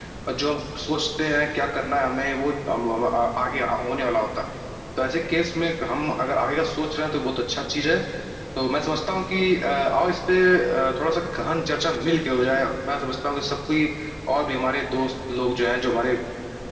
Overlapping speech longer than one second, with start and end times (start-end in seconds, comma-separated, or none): none